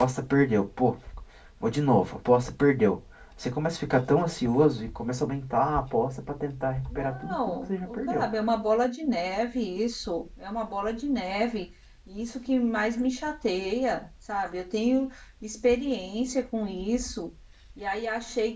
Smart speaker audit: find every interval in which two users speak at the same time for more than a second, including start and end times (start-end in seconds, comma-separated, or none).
7.0-8.2